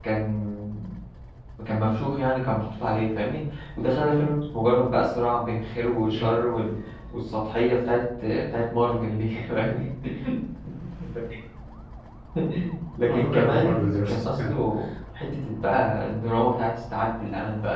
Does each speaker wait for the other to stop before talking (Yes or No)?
No